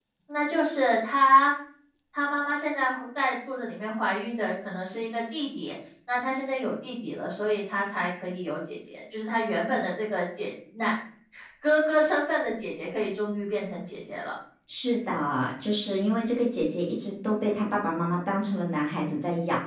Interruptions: none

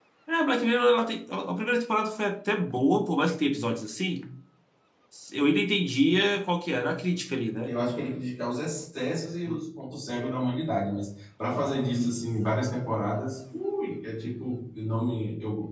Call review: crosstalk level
none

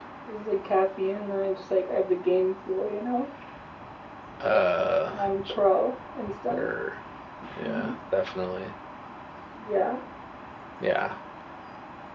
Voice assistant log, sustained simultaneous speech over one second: none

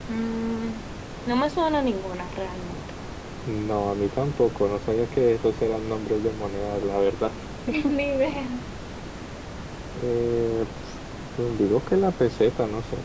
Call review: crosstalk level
none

